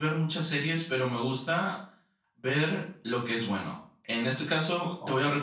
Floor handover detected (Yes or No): No